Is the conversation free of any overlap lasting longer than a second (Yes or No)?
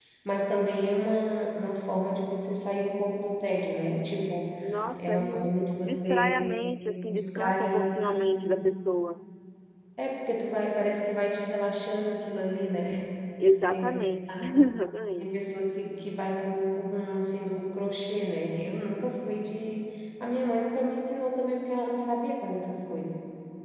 No